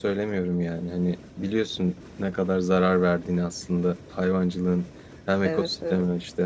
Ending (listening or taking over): listening